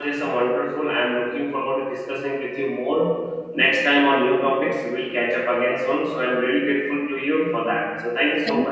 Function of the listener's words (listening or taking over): taking over